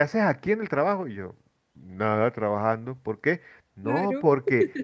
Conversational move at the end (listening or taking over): listening